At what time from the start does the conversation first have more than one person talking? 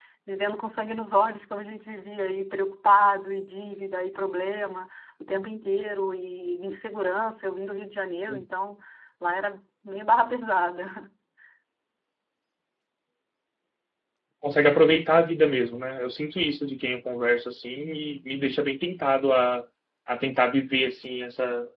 none

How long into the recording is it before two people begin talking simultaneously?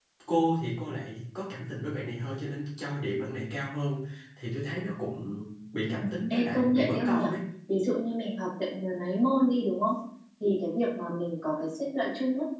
6 s

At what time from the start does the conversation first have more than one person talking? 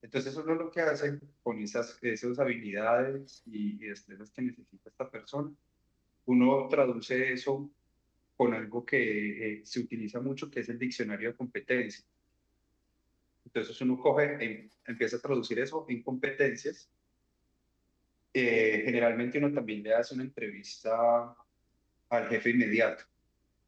none

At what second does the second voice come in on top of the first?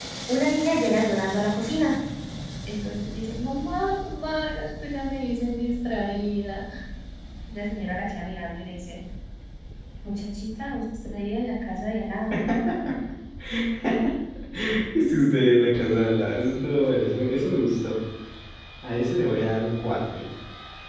none

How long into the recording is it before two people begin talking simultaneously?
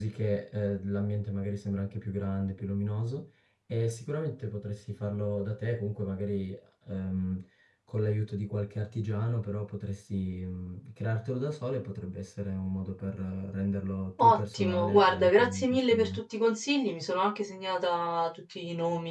14 s

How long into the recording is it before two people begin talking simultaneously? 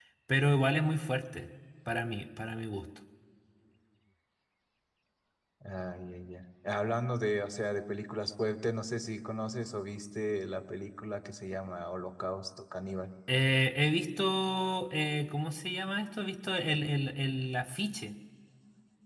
none

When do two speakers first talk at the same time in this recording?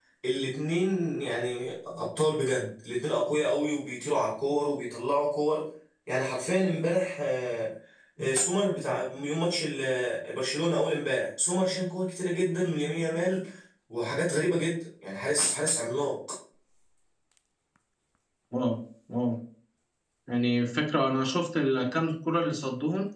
none

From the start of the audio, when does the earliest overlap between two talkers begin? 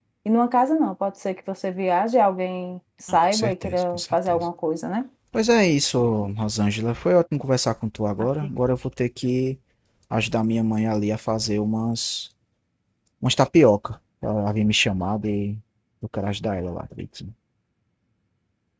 3 s

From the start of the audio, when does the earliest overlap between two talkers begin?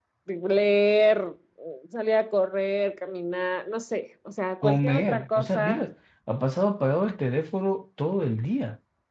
5 s

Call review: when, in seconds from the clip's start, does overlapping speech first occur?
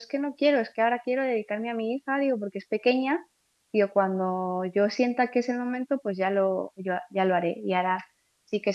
none

